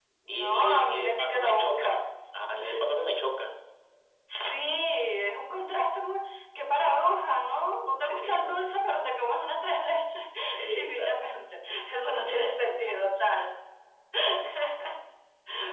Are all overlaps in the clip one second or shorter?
No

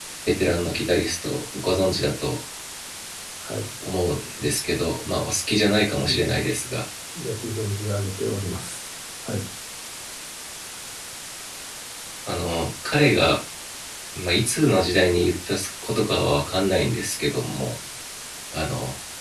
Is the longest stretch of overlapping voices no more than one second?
Yes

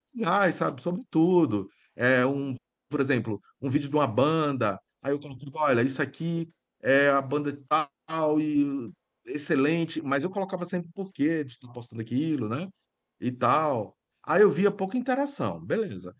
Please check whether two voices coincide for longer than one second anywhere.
No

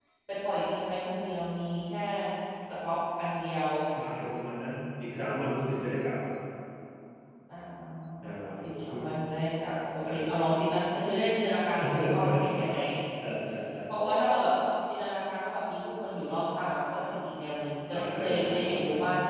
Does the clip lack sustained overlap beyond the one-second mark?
No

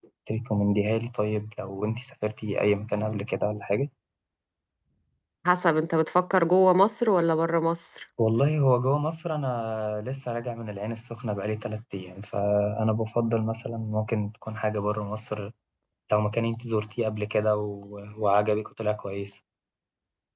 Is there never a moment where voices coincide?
Yes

